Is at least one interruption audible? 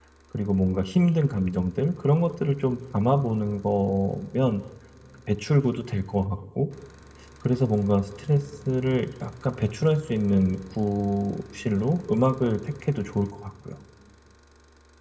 No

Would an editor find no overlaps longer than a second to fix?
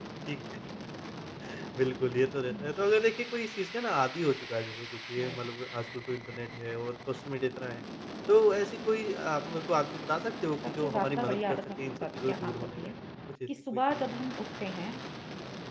No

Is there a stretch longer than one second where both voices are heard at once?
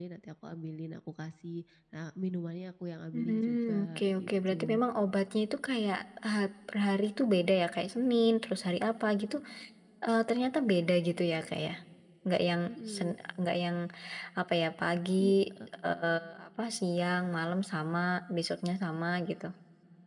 Yes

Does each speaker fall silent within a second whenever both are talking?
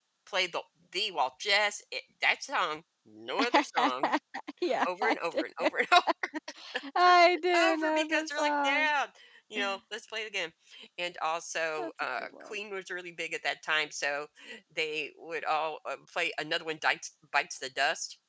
No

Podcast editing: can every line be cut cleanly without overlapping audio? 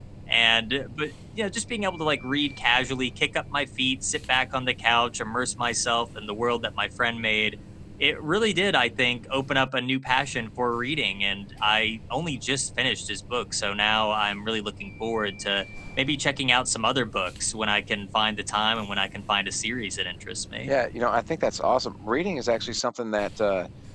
Yes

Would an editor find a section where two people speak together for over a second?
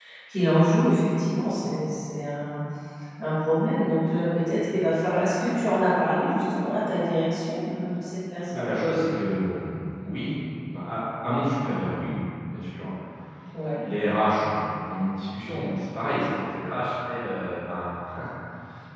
No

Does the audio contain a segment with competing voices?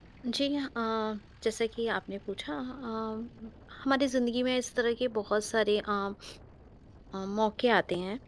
No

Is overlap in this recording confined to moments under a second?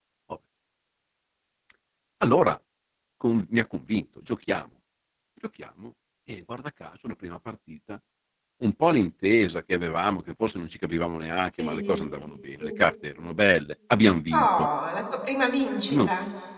Yes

